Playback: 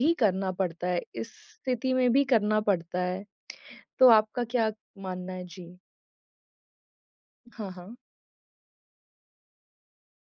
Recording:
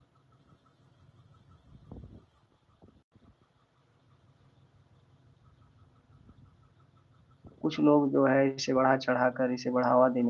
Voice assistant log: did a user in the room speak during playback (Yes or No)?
Yes